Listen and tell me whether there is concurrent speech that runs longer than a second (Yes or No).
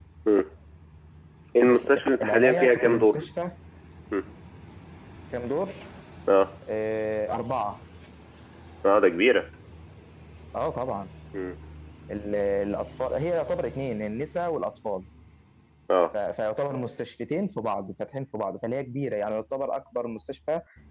Yes